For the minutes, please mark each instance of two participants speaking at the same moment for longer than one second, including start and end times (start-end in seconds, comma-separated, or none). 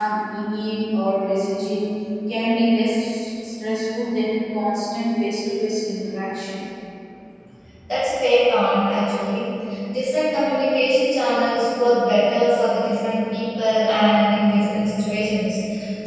none